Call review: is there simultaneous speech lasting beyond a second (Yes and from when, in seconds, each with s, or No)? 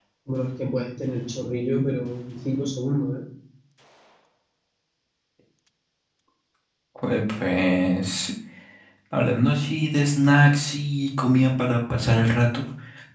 No